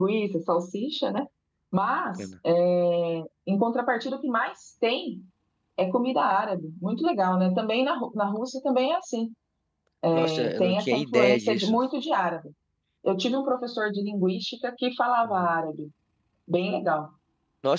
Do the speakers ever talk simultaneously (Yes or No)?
Yes